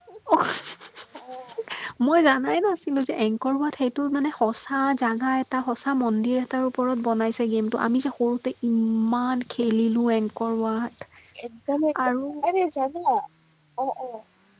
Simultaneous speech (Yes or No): No